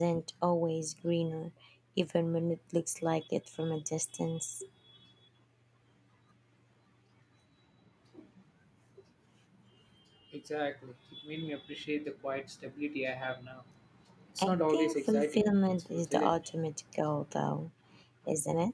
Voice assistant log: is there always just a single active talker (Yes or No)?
No